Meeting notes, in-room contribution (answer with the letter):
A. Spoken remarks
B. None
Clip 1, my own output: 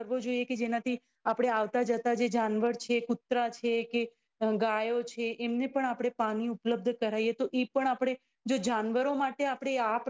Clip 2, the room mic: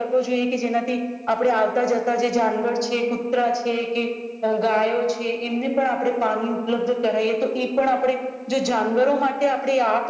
B